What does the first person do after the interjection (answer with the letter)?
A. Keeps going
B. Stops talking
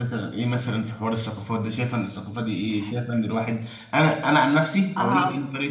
A